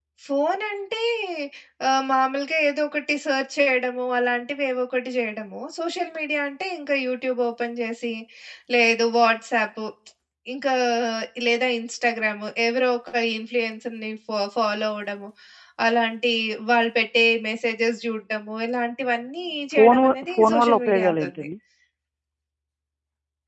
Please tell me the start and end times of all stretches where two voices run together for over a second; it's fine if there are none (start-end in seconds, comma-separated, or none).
19.7-21.3